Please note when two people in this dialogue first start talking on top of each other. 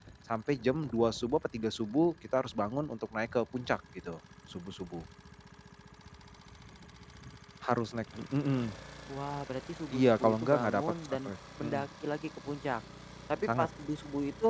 9.9 s

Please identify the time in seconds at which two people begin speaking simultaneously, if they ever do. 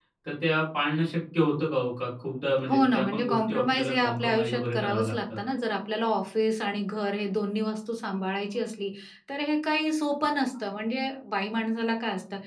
2.6 s

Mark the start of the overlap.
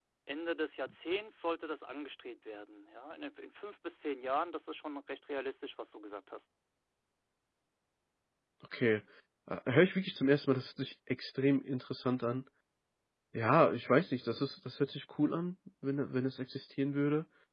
none

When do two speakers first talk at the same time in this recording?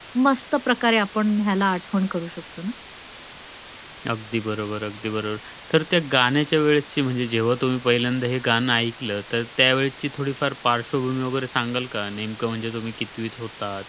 none

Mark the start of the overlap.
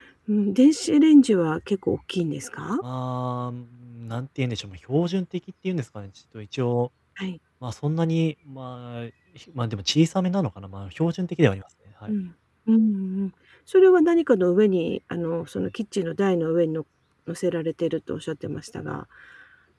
none

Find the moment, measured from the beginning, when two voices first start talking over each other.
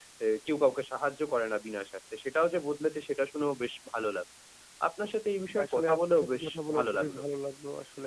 5.5 s

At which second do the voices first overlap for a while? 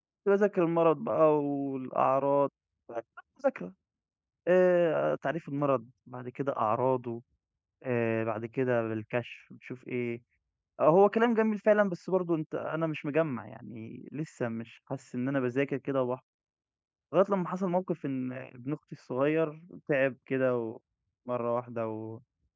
none

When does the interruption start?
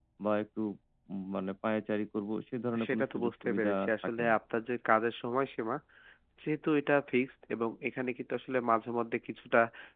2.7 s

